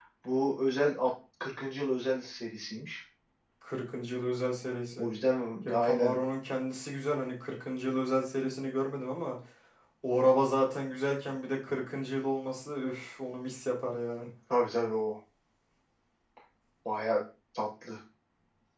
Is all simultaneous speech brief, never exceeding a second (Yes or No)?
Yes